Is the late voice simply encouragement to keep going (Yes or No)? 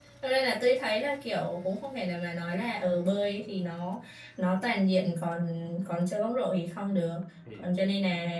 Yes